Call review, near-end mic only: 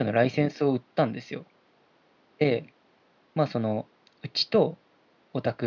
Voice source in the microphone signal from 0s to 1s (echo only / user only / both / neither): user only